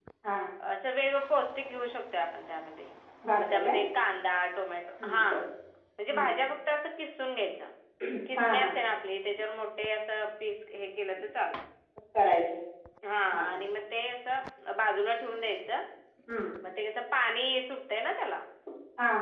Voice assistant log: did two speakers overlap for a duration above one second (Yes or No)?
No